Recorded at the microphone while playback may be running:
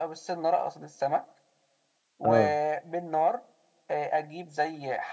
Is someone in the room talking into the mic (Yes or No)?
Yes